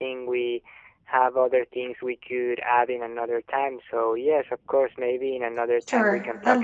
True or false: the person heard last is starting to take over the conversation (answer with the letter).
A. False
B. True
B